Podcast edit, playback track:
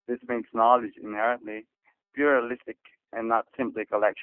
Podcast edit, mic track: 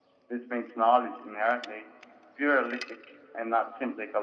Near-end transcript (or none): none